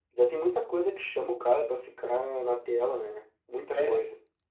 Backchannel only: No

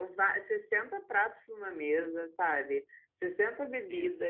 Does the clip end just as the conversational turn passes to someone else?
No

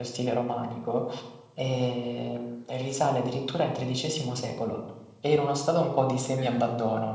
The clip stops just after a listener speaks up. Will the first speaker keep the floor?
Yes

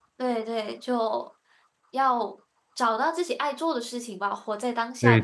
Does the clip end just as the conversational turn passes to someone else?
Yes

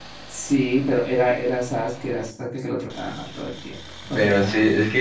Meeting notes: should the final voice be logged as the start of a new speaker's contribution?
Yes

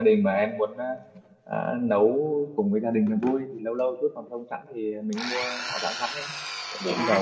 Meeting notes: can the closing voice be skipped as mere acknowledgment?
No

